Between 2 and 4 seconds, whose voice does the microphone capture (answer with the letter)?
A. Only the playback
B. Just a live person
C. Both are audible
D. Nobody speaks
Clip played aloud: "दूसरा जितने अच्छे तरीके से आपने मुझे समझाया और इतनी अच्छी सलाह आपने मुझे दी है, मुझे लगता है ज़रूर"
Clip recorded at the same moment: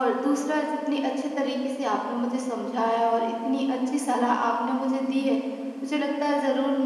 A